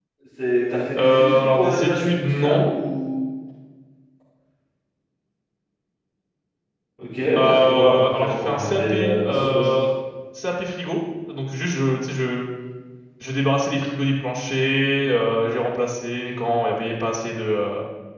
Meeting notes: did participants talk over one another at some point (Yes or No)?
Yes